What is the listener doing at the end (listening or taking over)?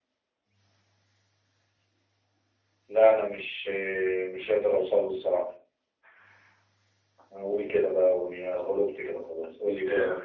taking over